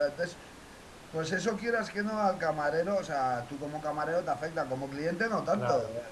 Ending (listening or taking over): taking over